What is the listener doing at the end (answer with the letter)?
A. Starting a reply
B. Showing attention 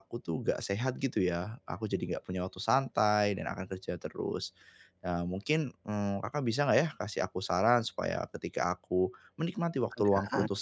B